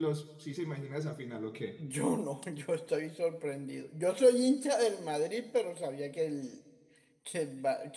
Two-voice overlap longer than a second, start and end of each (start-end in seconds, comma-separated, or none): none